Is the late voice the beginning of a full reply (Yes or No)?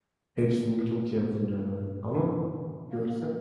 No